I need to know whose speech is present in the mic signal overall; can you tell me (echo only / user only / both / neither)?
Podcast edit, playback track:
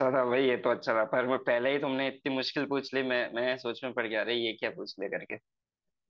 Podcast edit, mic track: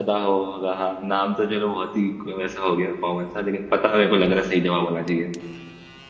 user only